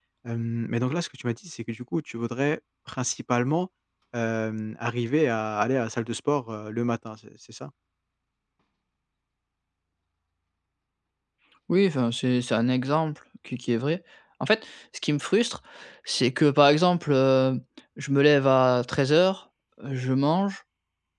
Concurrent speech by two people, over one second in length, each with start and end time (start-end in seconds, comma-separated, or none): none